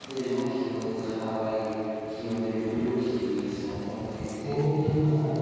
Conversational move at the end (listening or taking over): taking over